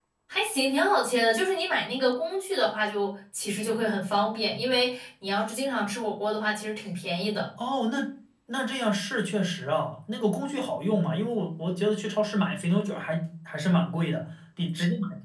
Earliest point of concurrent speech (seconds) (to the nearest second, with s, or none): none